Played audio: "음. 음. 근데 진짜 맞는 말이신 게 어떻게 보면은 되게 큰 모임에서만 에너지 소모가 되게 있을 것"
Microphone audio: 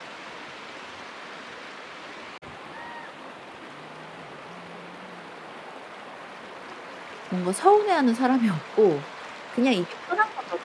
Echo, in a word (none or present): none